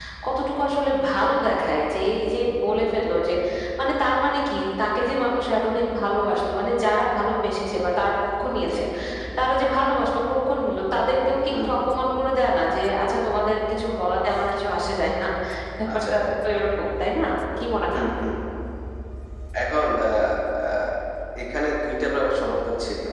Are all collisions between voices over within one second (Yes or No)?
Yes